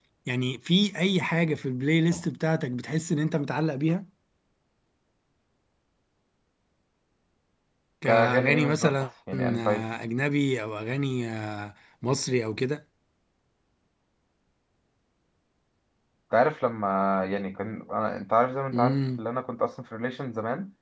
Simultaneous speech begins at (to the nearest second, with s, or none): 8 s